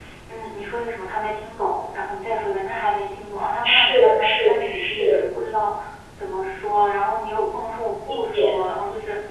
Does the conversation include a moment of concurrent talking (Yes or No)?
Yes